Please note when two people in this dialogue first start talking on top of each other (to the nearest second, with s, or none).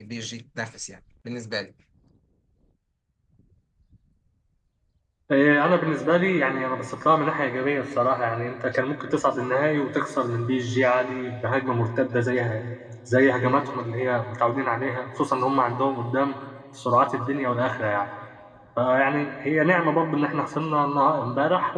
none